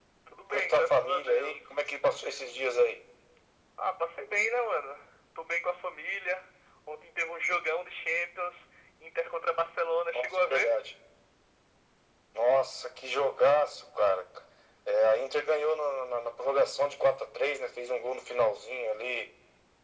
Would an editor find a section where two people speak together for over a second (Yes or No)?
Yes